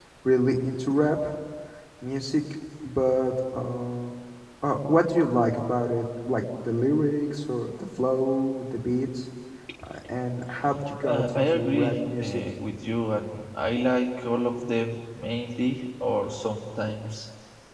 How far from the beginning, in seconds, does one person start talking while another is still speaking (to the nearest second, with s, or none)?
11 s